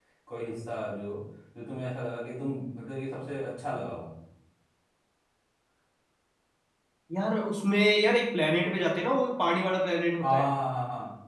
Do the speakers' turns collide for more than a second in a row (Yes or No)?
No